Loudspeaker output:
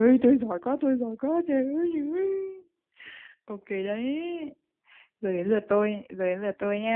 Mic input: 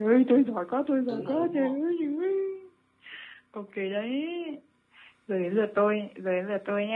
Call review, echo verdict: present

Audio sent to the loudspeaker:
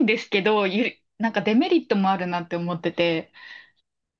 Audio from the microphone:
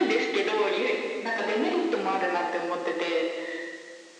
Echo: present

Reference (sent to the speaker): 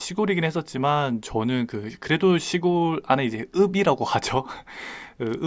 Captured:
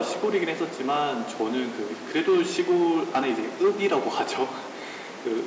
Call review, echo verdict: present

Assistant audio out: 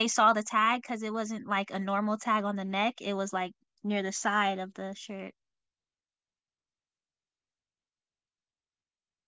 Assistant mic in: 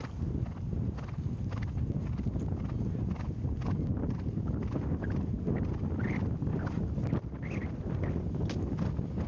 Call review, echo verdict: none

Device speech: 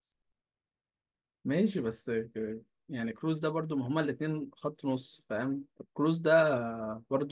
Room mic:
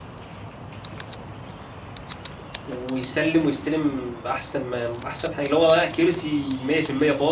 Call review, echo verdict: none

